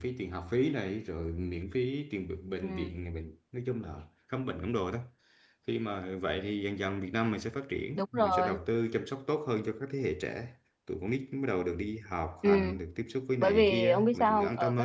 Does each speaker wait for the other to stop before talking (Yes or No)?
No